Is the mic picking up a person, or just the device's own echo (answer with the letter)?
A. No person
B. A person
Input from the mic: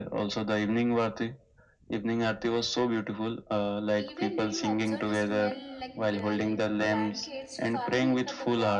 B